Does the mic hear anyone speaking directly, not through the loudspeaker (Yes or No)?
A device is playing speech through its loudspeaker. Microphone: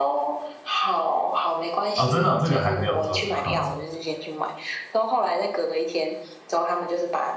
Yes